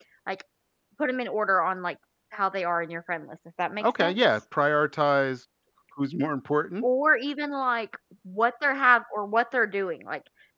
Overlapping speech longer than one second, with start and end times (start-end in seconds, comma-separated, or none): none